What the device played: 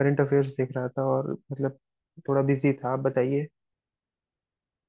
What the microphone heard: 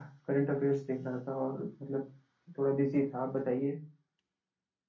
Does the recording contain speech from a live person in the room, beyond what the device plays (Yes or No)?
No